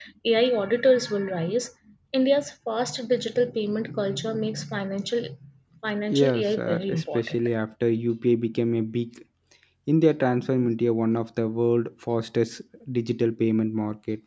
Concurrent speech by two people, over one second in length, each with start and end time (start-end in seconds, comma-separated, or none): 6.1-7.4